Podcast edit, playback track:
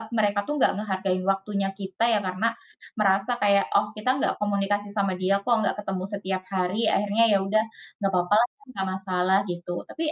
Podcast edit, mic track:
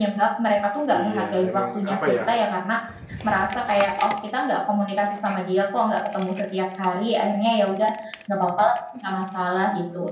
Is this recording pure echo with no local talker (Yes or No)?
No